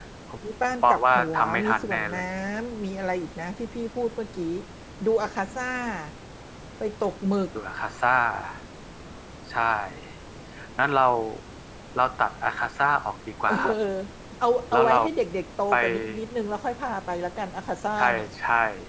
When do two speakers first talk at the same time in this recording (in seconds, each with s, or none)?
0.8 s